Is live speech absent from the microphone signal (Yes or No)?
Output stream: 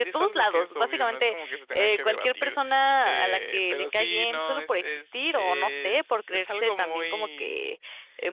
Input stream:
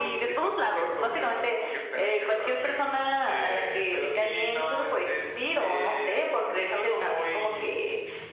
Yes